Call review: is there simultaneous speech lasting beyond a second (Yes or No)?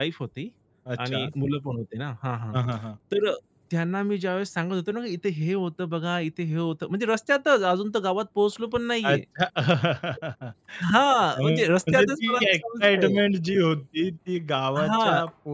Yes